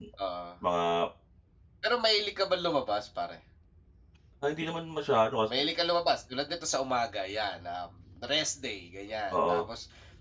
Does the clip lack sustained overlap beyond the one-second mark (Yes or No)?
Yes